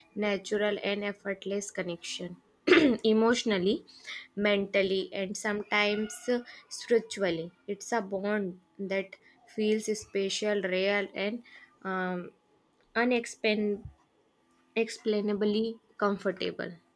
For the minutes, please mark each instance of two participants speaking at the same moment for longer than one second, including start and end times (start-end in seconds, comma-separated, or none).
none